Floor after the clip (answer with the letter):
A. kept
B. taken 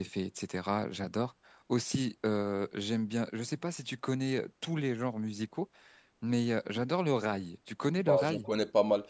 B